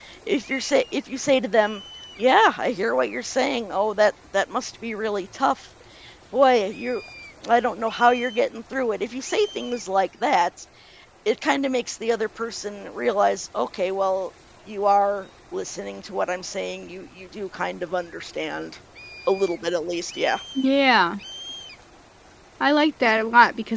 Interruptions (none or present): none